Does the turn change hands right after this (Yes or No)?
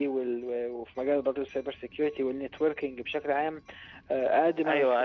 Yes